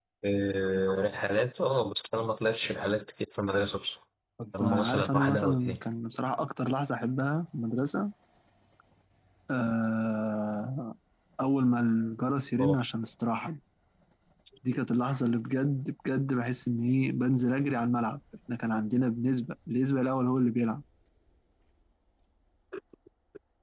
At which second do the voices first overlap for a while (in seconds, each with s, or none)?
4.6 s